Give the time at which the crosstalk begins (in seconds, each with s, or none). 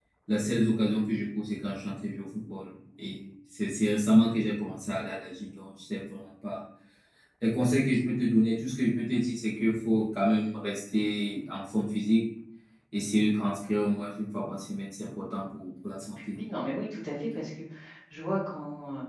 none